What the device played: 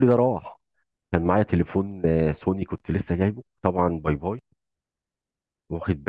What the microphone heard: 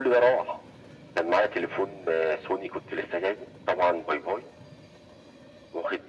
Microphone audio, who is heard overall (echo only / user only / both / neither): echo only